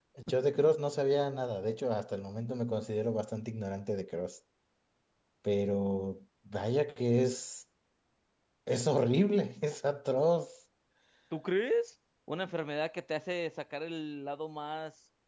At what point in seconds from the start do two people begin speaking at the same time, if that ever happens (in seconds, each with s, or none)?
none